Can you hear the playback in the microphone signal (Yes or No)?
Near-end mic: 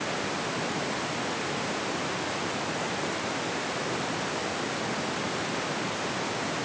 No